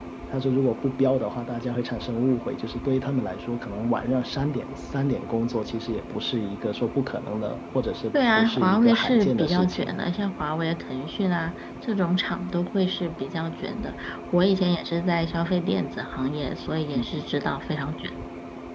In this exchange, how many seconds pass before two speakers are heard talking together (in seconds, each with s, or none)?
8.3 s